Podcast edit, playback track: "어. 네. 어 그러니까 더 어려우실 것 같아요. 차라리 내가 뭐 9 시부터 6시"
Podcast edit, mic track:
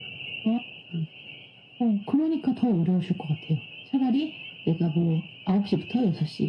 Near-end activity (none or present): none